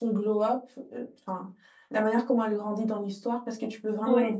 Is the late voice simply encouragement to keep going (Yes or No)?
Yes